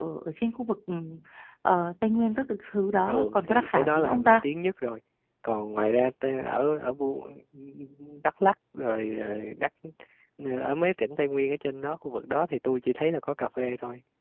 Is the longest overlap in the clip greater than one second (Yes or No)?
Yes